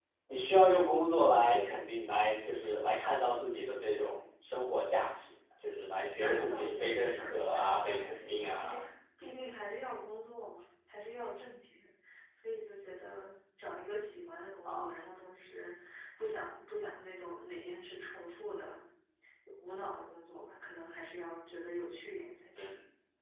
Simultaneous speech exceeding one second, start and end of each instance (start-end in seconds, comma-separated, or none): 6.2-8.8